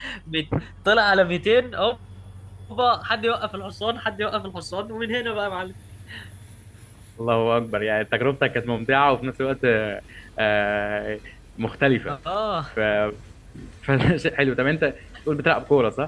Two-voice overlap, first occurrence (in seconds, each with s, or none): none